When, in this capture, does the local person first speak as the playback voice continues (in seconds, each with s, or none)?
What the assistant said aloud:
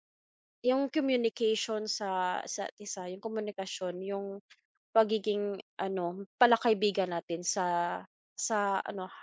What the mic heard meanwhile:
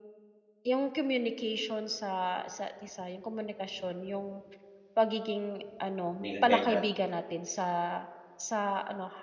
6.2 s